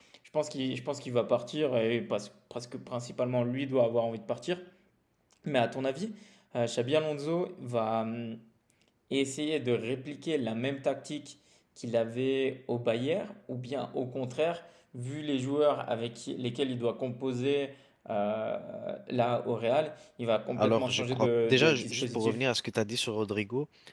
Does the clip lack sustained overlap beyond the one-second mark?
No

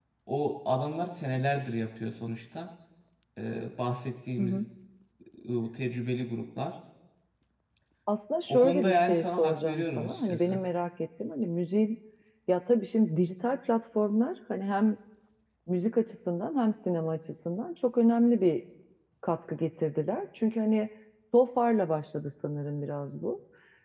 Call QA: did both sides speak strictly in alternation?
No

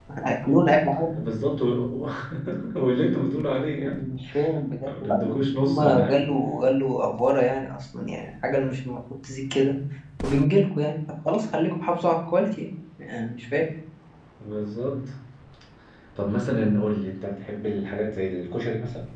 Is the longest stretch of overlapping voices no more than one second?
No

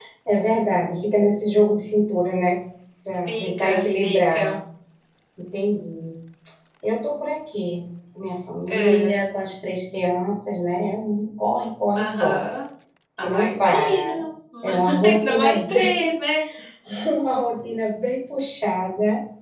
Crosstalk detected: Yes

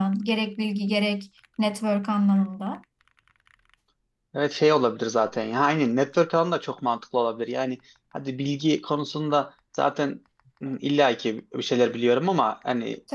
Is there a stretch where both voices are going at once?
No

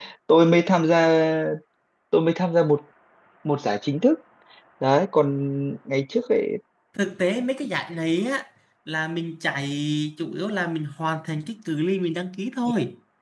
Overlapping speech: No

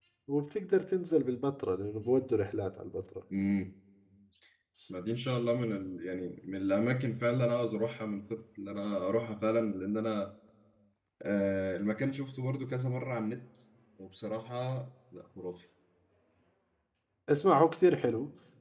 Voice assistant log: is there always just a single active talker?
Yes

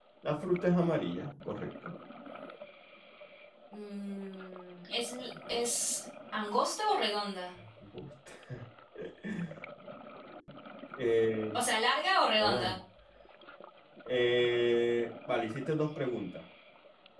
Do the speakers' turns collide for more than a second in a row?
No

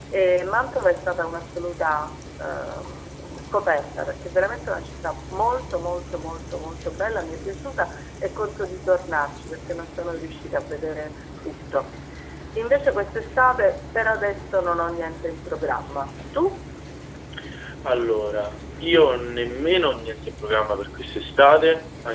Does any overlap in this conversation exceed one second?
No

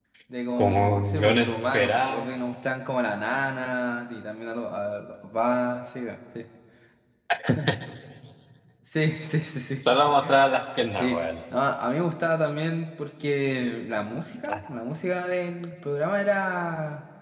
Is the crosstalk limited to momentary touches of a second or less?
No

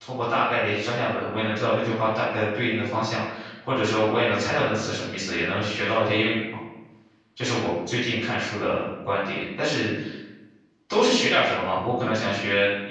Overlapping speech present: No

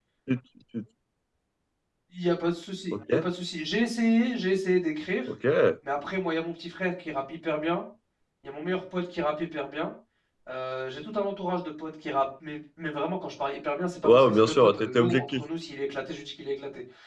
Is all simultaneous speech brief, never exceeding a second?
No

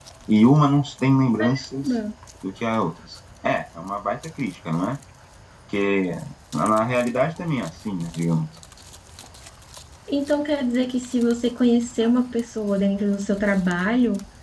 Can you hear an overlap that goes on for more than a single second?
No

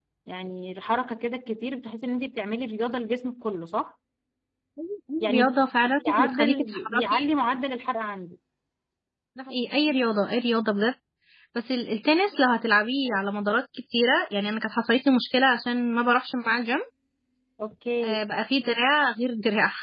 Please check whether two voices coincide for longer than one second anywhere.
Yes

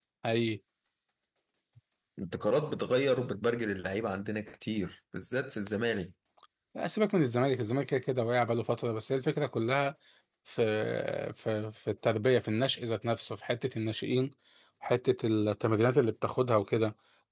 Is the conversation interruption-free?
Yes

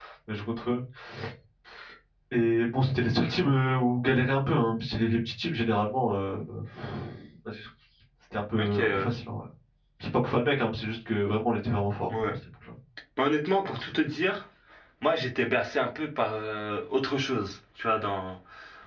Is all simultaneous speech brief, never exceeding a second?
Yes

